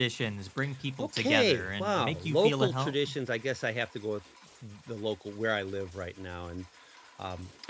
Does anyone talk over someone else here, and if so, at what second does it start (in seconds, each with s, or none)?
1.0 s